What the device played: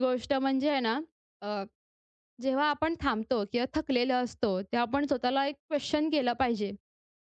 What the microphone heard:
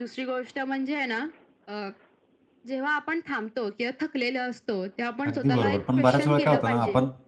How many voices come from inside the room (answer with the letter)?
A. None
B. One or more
B